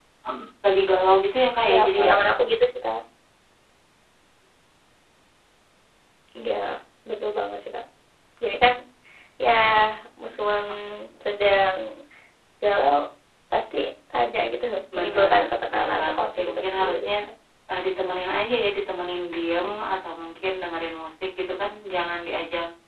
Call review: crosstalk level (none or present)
present